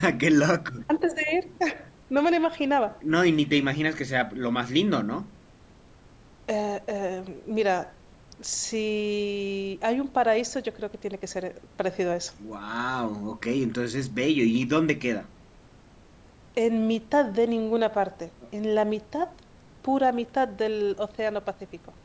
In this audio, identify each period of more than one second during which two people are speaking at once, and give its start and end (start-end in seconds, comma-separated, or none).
none